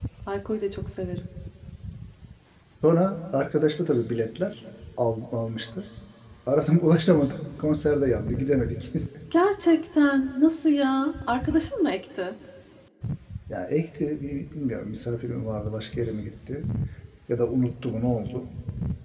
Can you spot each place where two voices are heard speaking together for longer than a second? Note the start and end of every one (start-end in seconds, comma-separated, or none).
none